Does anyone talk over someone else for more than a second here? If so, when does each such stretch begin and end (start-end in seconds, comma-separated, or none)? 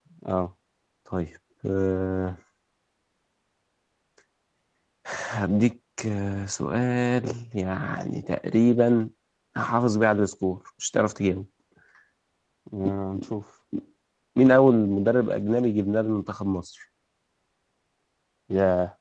none